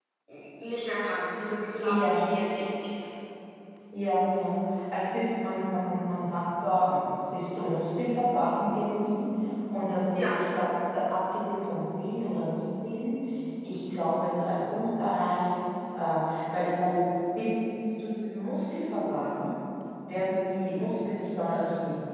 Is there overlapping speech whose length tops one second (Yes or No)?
No